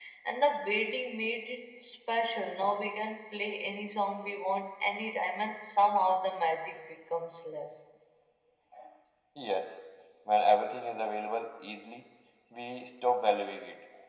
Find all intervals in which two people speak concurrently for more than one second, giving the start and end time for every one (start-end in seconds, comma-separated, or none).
none